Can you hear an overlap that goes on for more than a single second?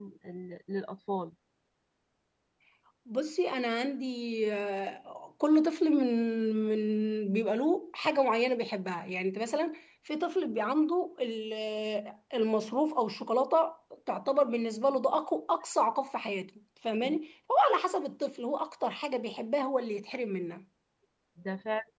No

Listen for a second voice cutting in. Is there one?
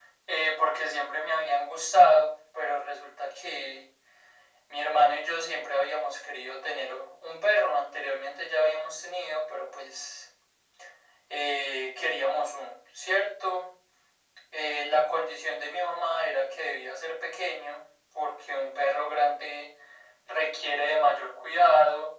No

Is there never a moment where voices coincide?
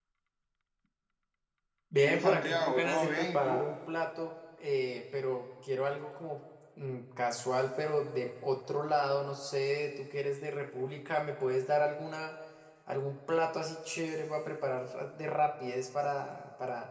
No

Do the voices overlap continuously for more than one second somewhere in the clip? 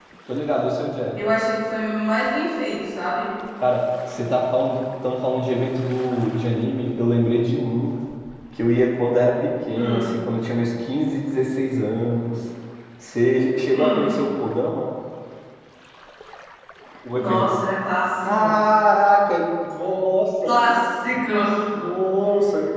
No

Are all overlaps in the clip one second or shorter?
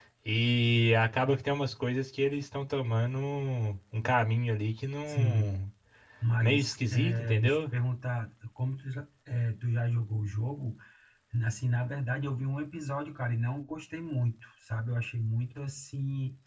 No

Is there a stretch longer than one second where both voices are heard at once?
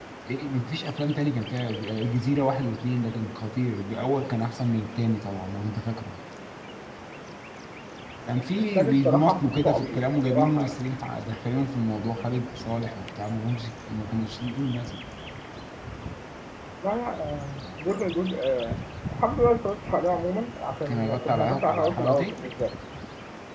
Yes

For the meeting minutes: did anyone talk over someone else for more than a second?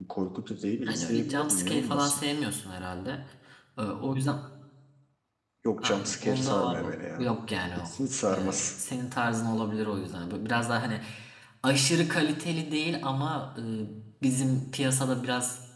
Yes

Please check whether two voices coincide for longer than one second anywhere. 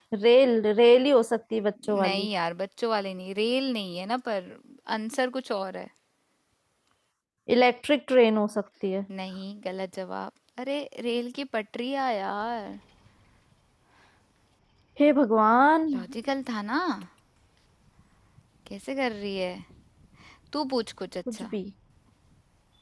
No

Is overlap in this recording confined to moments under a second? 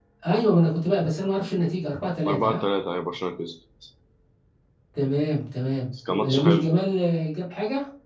Yes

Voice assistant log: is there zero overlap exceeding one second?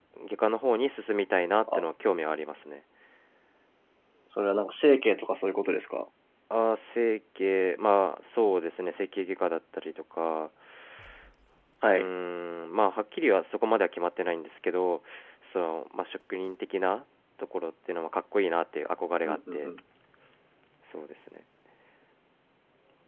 Yes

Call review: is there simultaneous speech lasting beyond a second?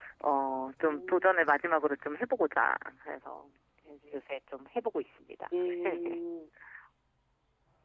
No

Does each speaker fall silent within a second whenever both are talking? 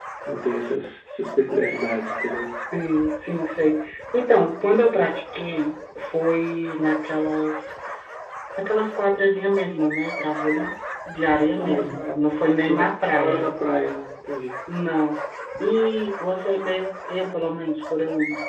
No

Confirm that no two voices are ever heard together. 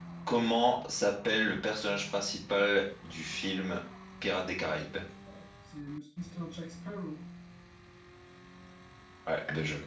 Yes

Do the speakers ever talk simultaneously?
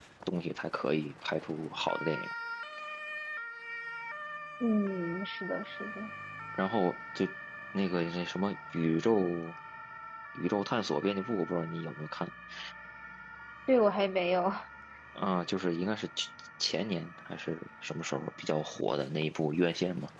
No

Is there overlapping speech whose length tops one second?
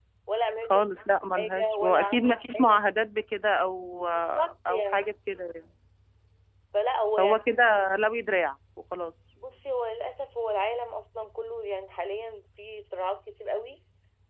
Yes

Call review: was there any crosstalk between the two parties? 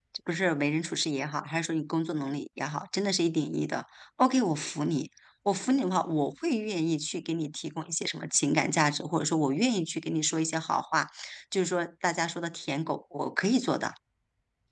No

